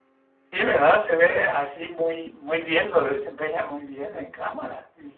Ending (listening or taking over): listening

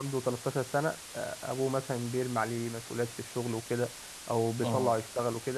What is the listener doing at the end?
listening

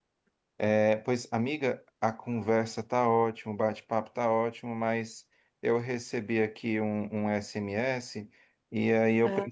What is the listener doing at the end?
listening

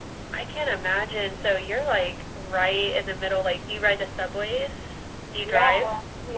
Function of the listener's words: taking over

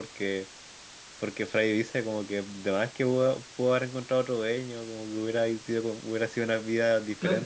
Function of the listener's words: taking over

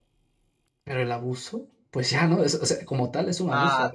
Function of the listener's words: taking over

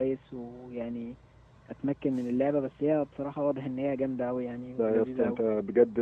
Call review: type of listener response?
taking over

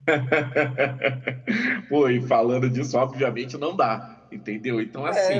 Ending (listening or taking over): taking over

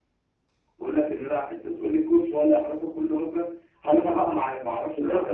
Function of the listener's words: taking over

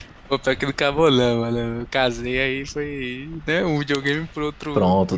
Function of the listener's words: taking over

